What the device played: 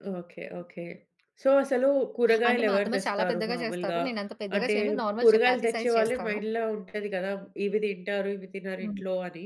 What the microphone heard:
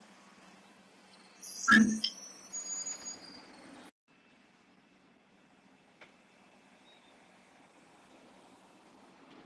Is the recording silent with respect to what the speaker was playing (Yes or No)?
Yes